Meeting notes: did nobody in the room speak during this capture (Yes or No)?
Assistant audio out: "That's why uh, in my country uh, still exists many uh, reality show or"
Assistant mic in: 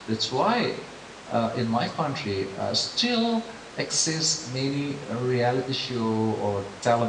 Yes